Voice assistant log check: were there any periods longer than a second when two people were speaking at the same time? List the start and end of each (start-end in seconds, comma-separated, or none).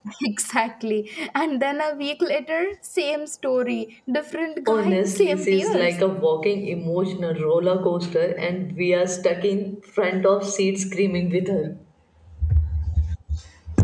4.7-6.0